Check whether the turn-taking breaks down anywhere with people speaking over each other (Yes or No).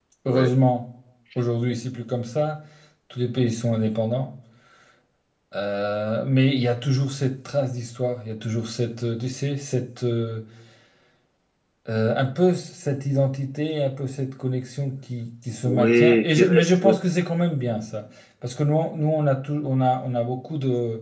Yes